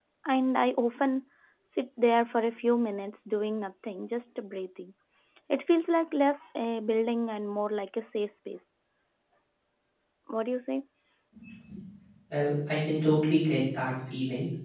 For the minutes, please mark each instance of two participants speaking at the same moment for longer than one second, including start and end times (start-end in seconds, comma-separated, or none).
none